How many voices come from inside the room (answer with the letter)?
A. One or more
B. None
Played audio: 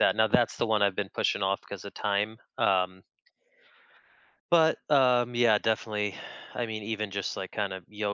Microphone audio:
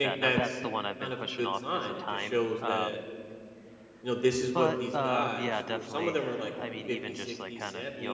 A